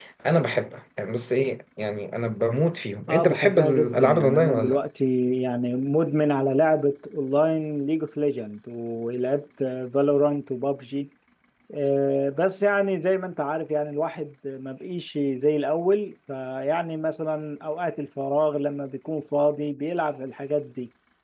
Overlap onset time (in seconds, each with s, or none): 3.1 s